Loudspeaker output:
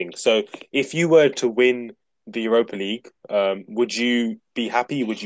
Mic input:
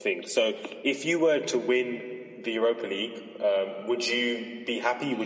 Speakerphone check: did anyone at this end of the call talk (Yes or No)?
No